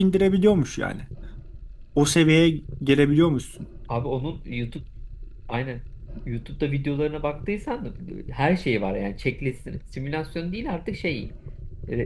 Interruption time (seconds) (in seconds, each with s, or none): none